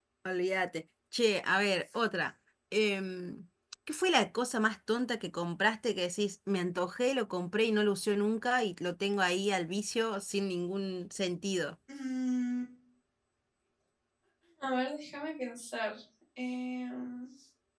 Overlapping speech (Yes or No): No